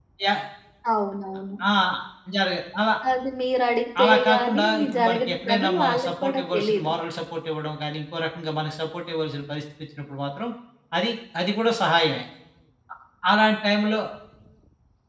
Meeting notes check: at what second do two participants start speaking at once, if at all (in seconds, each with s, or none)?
4.0 s